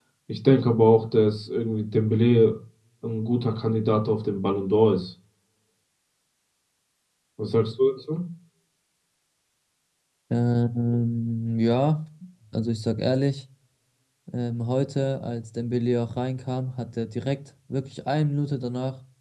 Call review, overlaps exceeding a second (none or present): none